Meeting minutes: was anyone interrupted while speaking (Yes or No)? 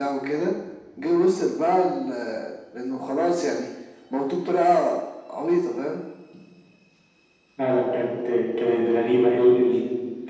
No